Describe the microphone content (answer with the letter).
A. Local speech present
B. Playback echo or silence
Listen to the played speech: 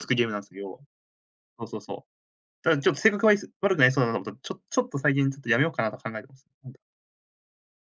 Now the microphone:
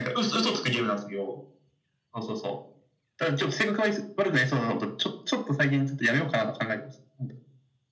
B